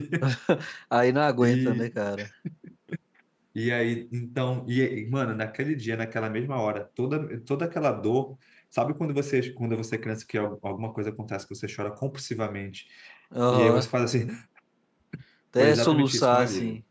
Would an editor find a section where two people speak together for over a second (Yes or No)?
Yes